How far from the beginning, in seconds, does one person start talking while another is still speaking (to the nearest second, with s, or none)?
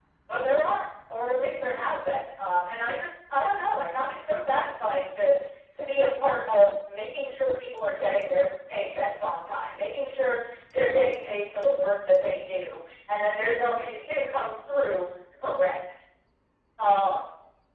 none